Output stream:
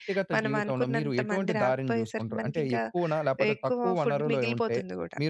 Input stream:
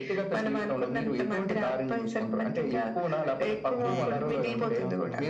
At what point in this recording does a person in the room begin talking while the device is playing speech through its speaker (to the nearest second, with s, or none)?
4 s